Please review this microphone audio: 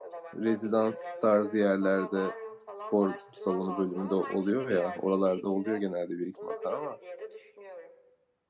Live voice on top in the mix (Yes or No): Yes